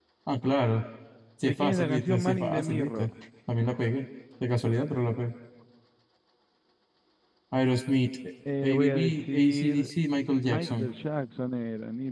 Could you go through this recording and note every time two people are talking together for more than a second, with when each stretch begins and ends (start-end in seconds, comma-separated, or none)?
1.4-3.1, 8.6-9.9